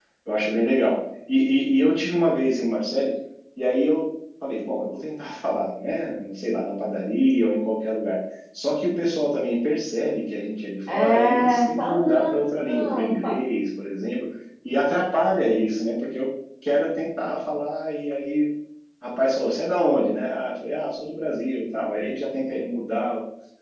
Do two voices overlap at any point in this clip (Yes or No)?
Yes